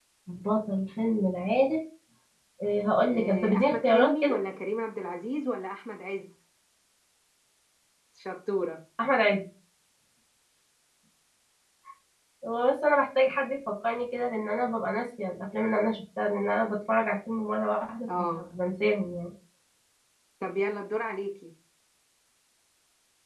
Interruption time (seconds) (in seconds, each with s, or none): 3.1 s